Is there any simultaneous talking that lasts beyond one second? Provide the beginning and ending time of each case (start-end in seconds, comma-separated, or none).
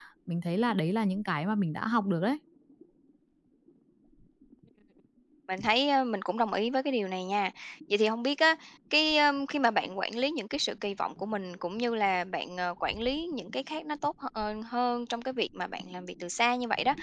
none